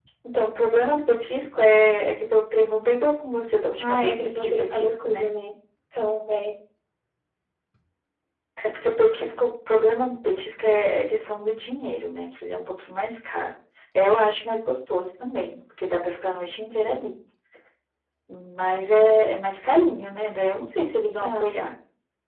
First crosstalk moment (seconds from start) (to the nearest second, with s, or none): 4 s